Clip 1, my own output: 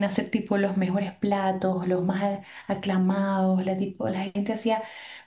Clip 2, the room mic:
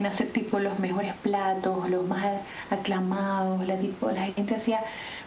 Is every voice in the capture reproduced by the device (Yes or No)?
Yes